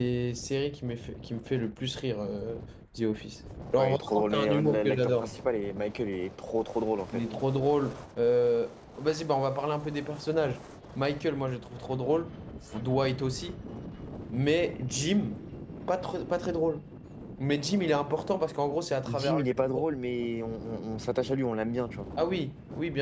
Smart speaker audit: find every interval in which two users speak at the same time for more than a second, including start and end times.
3.8-5.3

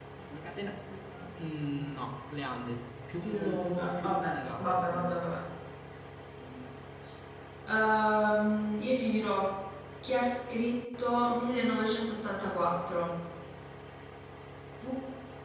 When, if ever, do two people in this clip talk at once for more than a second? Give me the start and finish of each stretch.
3.2-5.2

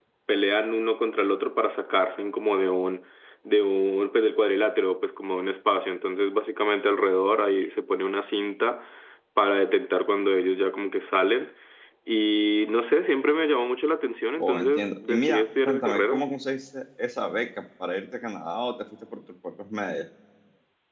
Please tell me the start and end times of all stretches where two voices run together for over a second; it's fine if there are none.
14.4-16.3

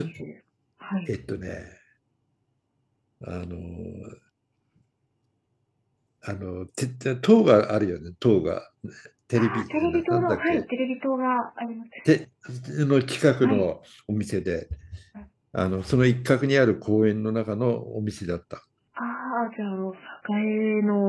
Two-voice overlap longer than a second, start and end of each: 9.4-10.6

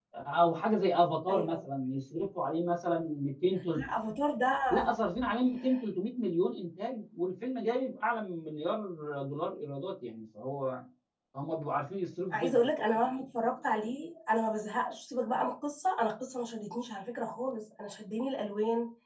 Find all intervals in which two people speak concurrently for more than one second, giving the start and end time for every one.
none

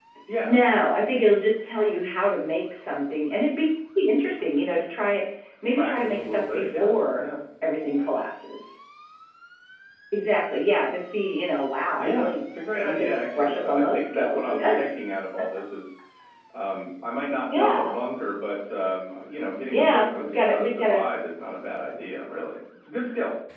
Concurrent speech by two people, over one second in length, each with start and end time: 5.7-7.2, 12.8-14.8, 19.7-21.1

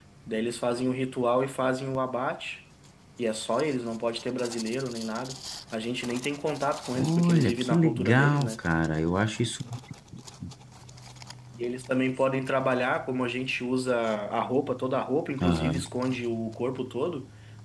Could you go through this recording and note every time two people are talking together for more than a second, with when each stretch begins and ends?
7.0-8.6

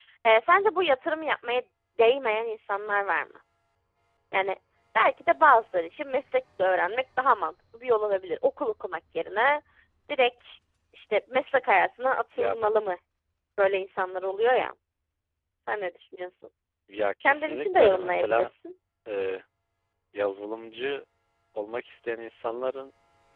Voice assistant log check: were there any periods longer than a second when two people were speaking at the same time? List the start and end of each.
17.2-18.5

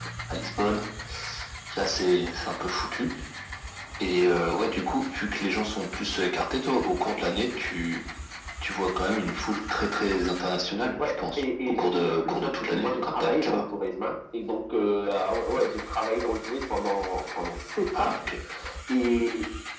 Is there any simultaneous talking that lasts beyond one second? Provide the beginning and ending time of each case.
11.0-13.6

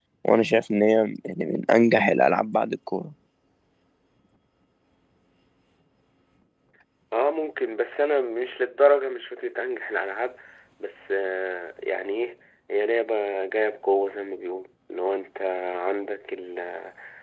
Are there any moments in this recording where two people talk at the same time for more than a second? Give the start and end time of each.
none

